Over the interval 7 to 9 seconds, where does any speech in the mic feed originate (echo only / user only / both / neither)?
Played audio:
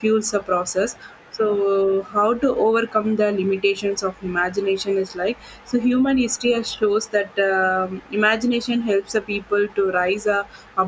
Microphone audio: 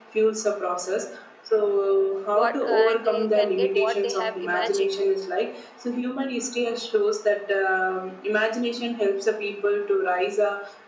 echo only